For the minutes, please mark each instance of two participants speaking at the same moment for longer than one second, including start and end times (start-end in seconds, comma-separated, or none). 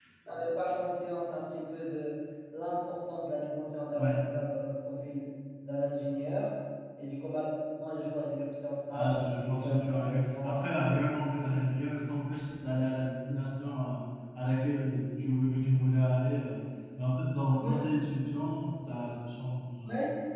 8.9-11.3